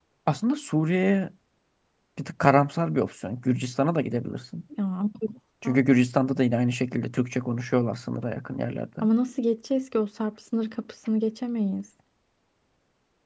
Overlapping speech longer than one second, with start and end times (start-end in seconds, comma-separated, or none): none